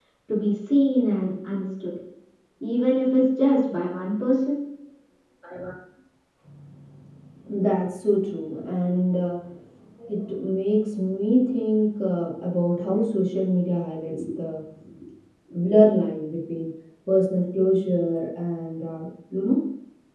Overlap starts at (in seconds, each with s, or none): none